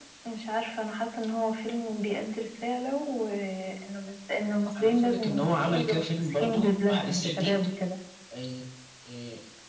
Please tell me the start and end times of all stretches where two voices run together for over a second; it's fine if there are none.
4.8-7.5

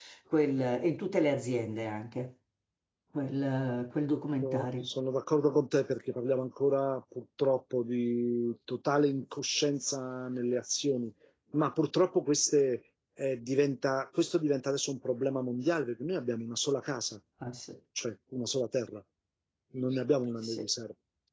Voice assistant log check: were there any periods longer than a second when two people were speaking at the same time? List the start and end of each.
none

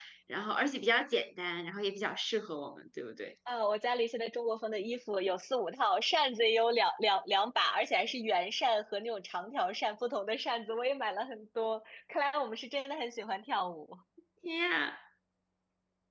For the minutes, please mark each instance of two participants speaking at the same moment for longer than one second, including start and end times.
none

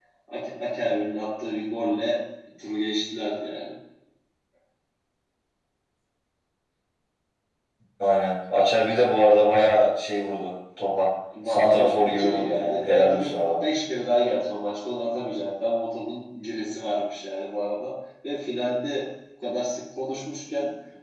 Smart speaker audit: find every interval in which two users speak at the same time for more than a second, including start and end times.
11.5-13.6

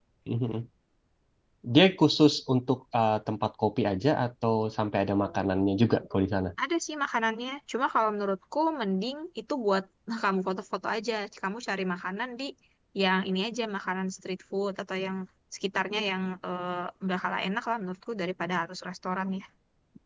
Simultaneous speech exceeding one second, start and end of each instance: none

